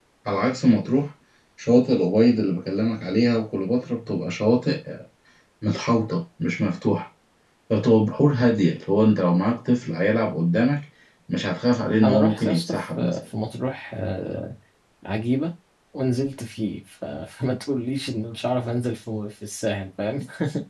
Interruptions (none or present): present